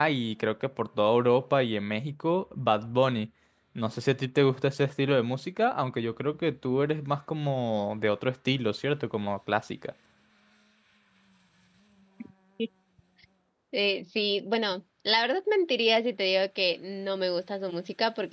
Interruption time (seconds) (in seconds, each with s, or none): none